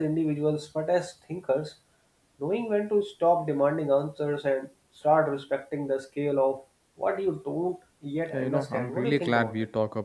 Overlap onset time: 8 s

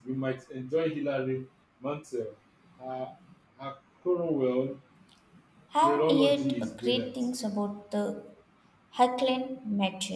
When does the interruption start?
6 s

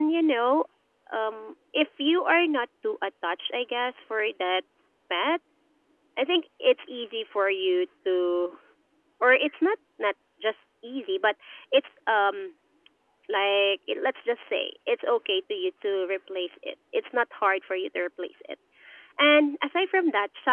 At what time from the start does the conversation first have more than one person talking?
none

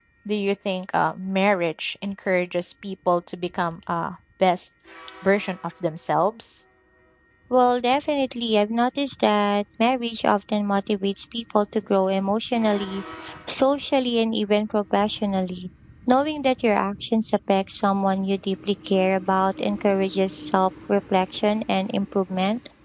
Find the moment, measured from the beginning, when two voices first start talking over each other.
none

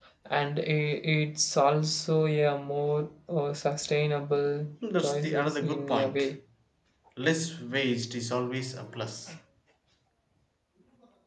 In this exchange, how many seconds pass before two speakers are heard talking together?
5 s

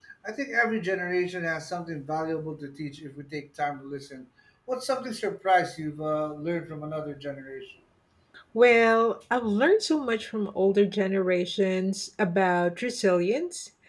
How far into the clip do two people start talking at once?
none

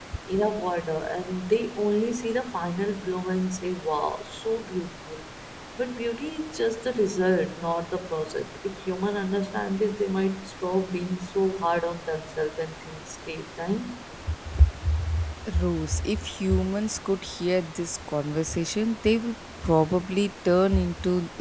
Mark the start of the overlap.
none

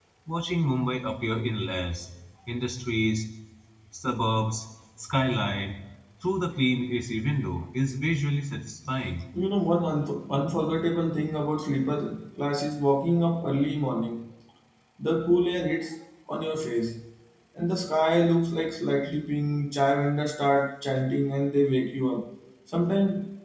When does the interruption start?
none

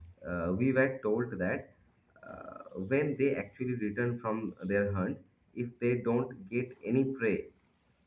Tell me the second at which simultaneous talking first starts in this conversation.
none

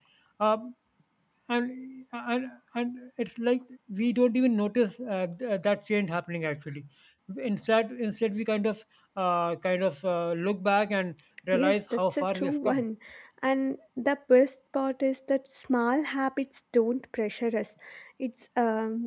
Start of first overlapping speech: 12 s

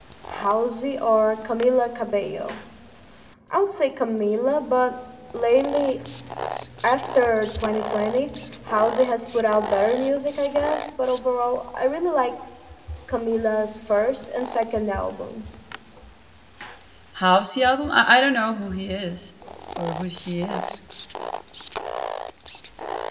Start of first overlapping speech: none

